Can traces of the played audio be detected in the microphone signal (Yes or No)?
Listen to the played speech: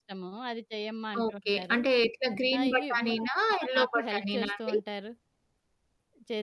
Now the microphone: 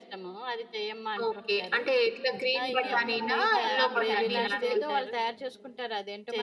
Yes